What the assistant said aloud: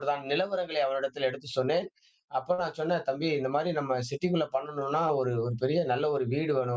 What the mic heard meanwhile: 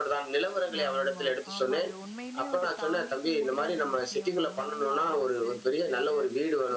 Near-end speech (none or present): present